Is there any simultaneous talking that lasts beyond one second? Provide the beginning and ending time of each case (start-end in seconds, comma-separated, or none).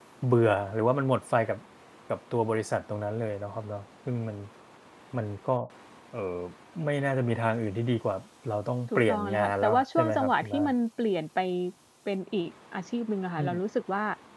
9.0-10.7